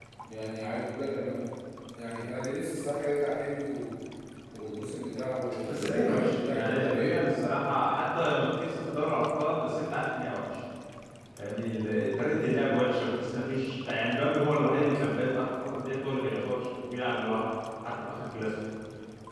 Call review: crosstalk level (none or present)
present